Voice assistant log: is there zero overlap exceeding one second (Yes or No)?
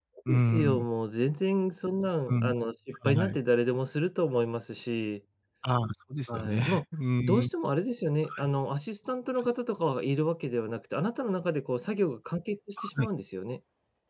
Yes